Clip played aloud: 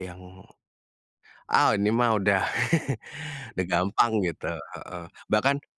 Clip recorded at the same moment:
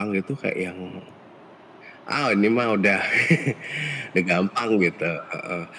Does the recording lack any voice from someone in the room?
Yes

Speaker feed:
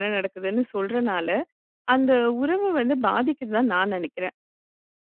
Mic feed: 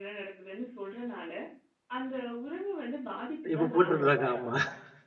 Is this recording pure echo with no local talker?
No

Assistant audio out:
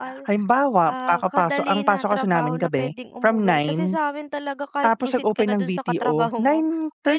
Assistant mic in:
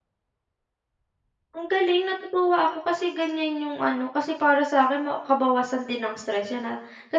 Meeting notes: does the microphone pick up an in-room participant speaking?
Yes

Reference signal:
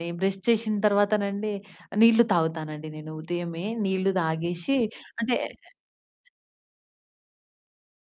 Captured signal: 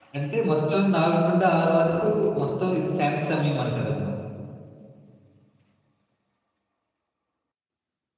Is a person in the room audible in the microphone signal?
Yes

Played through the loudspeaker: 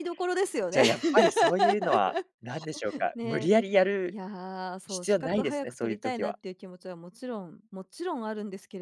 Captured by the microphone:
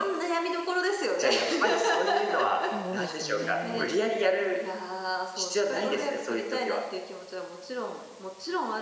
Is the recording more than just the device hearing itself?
Yes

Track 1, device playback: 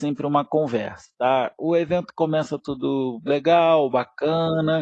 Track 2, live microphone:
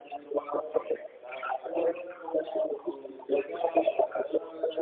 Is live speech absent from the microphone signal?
Yes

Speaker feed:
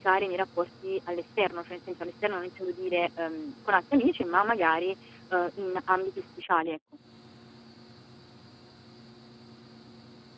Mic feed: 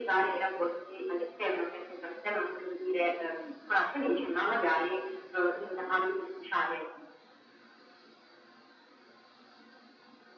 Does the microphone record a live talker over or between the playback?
No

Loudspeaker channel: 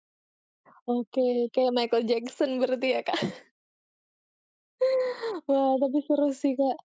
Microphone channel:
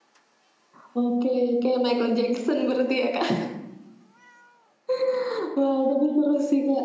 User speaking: No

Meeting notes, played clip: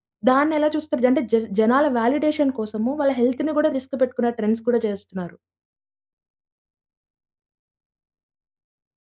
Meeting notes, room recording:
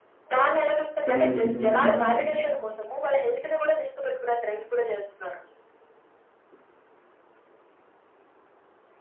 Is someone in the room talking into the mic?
Yes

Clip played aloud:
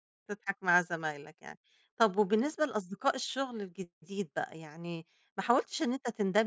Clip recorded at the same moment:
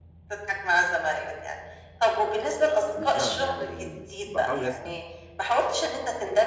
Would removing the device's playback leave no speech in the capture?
No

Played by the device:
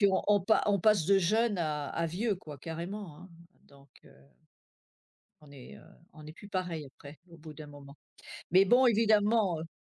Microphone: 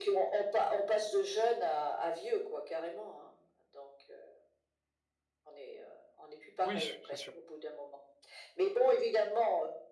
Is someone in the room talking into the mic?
Yes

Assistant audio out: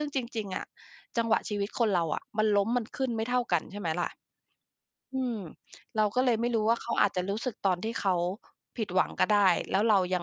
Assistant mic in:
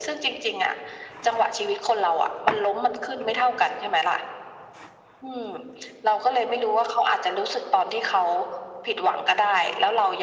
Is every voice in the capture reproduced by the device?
Yes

